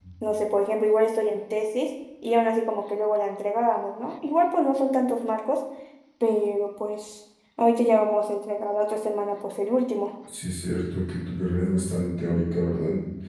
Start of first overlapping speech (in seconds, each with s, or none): none